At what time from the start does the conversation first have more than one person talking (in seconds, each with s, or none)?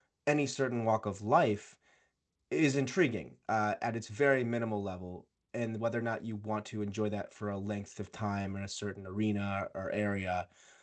none